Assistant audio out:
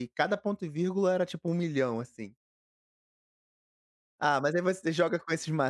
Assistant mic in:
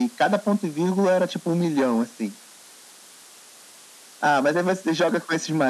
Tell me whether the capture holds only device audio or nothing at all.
Yes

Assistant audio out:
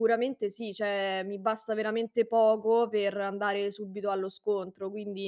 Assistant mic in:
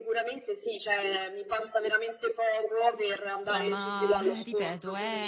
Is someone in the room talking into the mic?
Yes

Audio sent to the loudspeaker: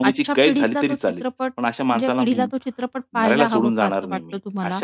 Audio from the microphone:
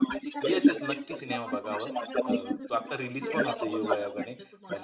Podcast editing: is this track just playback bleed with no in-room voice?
No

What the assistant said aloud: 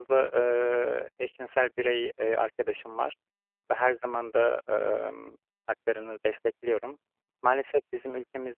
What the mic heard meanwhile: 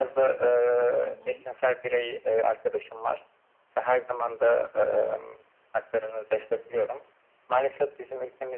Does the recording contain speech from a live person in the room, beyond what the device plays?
Yes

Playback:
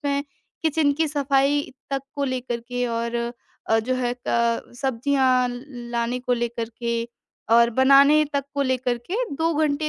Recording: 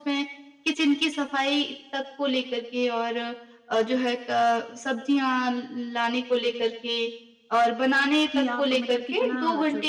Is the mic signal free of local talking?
No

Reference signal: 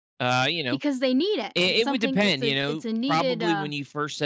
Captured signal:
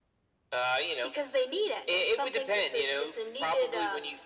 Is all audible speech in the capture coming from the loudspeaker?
Yes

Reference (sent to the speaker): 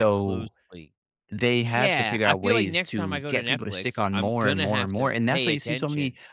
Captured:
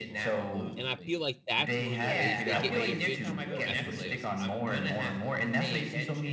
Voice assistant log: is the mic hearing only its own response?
No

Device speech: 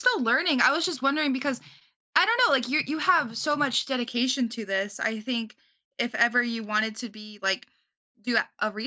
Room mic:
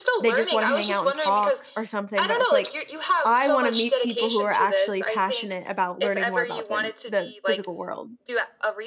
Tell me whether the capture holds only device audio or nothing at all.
No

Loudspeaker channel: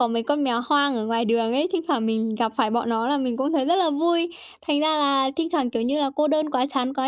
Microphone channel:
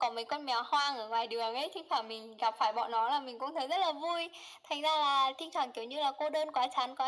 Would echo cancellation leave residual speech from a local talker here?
No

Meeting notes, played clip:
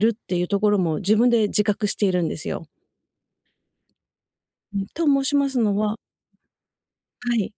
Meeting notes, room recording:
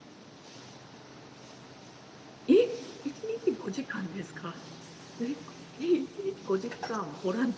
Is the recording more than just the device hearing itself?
Yes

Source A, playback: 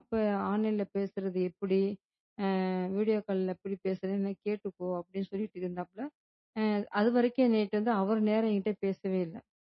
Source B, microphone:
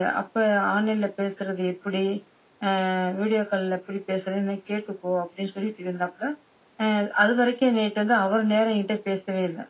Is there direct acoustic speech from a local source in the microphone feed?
No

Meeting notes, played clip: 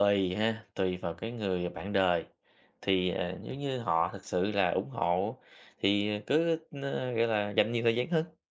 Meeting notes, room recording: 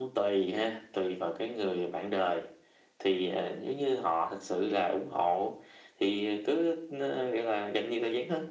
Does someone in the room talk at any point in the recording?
No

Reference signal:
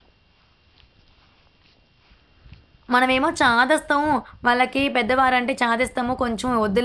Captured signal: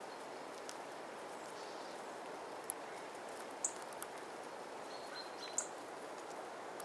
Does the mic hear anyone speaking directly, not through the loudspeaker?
No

